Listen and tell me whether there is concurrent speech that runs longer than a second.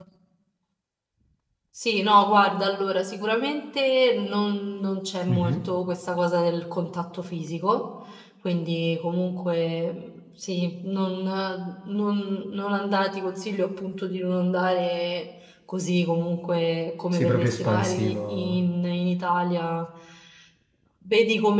Yes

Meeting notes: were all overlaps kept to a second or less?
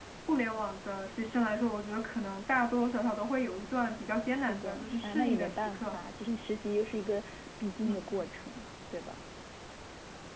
No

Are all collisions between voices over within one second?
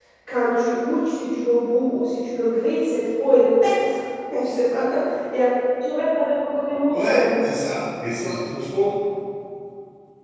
Yes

